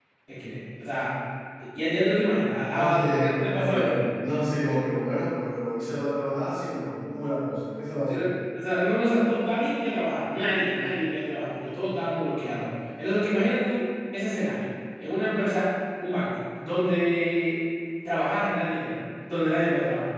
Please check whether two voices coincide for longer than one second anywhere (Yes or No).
Yes